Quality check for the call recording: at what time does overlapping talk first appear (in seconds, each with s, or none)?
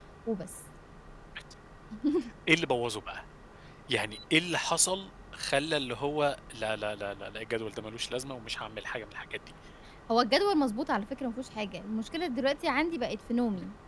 none